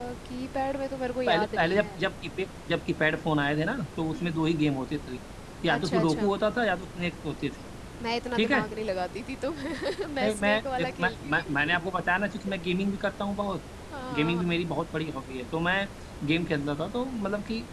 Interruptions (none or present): present